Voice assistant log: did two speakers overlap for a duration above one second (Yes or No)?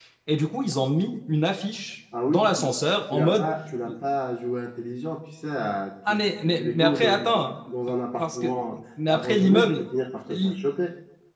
Yes